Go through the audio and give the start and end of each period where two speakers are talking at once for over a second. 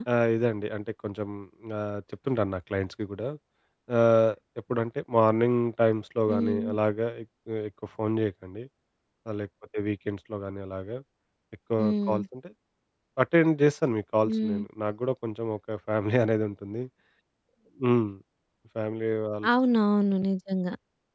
none

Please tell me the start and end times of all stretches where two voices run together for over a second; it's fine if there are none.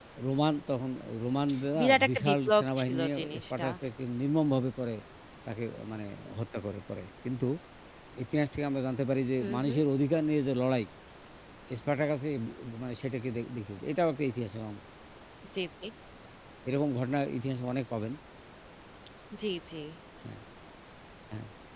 1.8-3.6

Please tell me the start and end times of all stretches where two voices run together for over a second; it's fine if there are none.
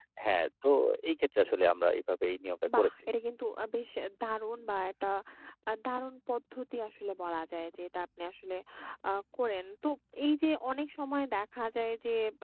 none

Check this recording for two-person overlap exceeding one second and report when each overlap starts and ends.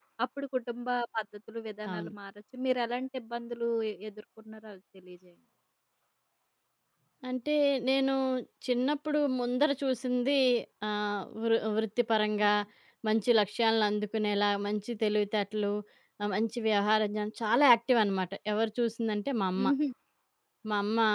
none

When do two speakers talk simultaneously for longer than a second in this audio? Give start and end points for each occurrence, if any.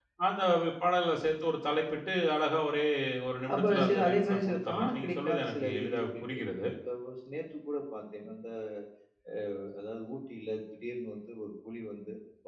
3.5-6.7

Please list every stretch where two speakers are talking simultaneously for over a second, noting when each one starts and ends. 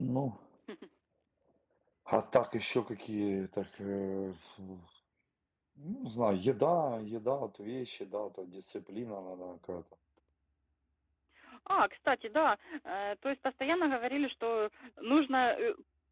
none

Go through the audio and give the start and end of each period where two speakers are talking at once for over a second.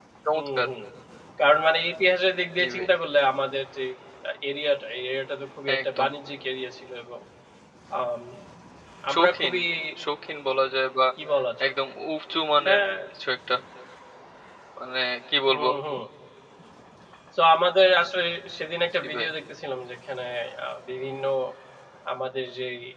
none

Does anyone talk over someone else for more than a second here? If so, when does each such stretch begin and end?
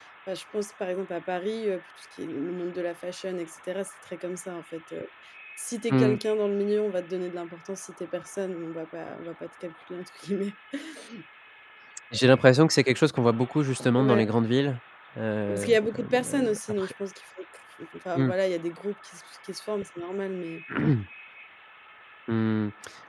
15.5-16.9

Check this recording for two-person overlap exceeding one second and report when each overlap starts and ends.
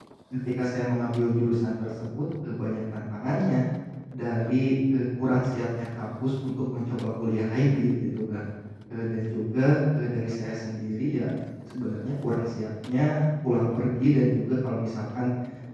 none

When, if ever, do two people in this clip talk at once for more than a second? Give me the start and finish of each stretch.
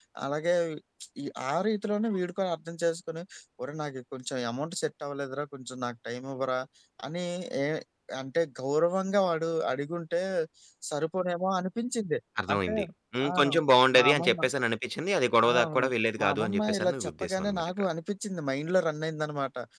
16.2-17.9

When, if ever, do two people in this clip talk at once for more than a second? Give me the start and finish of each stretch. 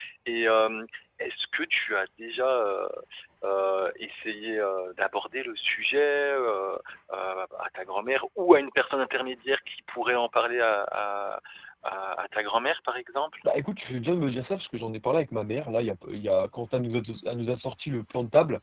none

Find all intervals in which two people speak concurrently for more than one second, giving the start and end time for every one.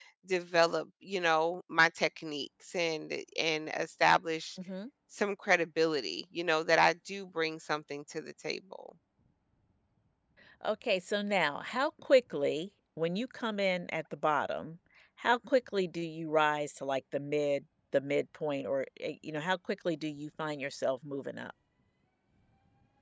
none

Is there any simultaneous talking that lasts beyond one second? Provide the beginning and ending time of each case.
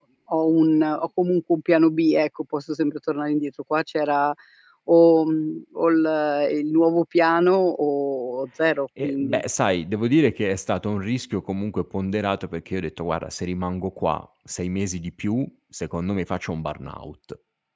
none

